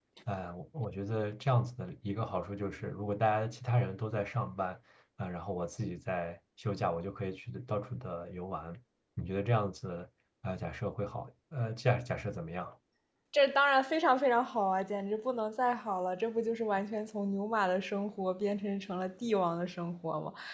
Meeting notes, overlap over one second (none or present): none